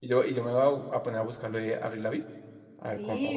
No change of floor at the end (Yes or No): No